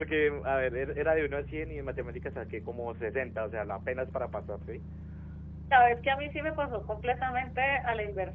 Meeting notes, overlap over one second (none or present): none